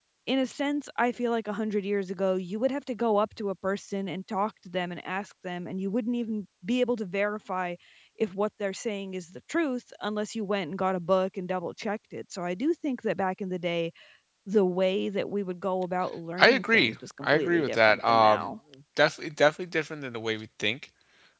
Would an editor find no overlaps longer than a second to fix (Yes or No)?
No